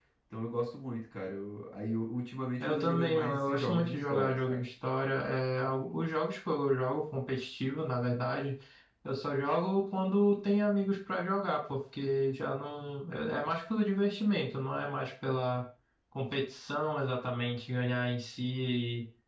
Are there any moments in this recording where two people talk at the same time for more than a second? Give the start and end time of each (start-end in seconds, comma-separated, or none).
2.6-4.6